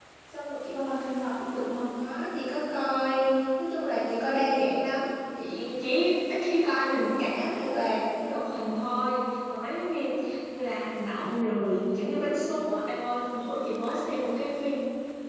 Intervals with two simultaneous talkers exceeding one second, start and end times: none

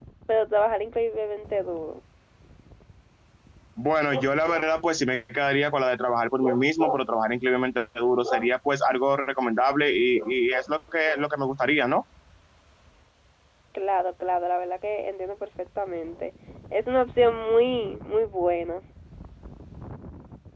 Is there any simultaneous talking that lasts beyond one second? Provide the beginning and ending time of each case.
none

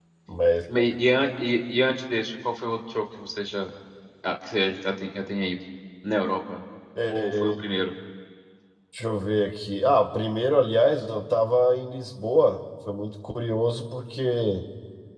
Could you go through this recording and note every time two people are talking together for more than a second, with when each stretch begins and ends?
none

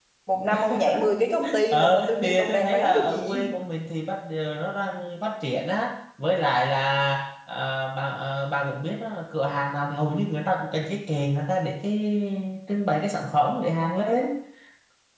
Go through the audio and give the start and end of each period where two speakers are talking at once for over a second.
1.7-3.4

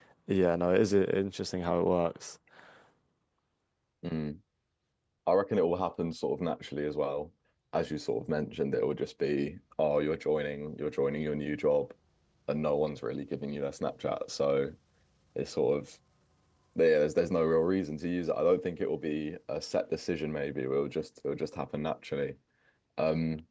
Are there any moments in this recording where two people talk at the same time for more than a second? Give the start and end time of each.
none

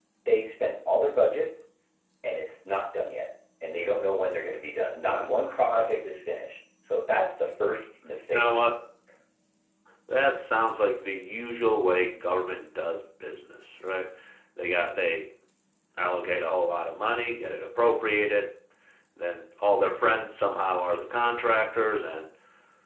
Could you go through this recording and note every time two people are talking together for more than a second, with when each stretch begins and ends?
none

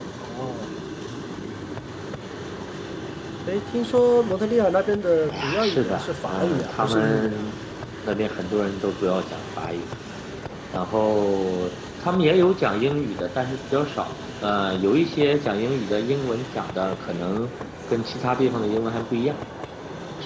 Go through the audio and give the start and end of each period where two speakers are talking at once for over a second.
5.3-7.5

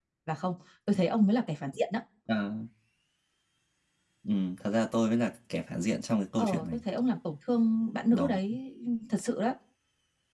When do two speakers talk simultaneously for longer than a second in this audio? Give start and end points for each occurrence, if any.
none

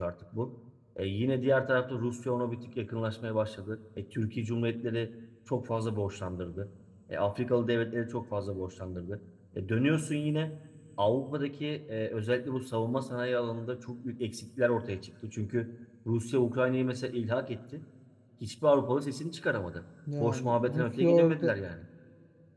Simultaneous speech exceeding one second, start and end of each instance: 20.2-21.5

